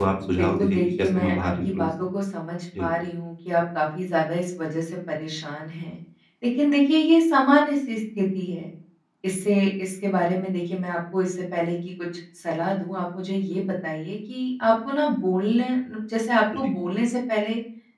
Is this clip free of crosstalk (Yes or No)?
No